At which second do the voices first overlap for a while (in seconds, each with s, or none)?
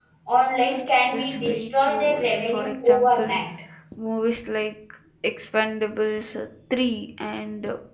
0.7 s